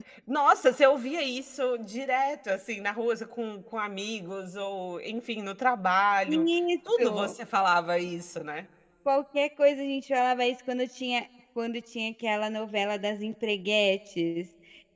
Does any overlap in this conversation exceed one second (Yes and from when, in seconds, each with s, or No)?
No